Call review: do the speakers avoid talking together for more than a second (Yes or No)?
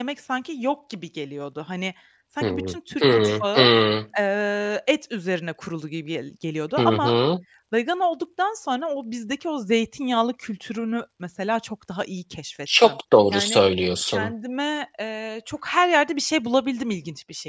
No